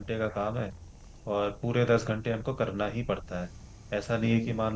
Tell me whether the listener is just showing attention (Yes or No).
Yes